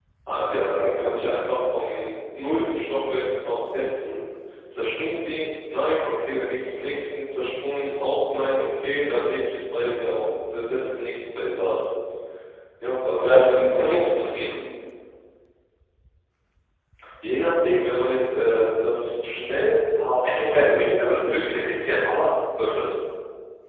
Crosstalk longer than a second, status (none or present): present